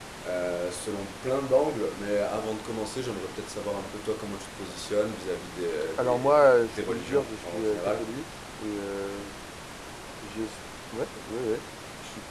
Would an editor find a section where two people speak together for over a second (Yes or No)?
Yes